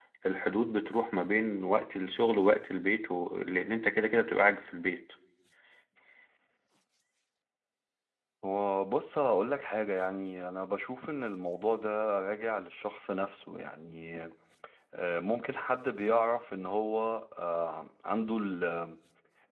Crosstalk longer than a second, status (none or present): none